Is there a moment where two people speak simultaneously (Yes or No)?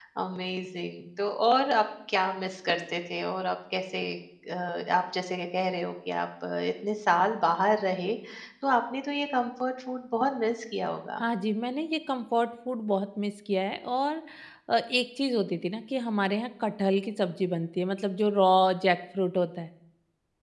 No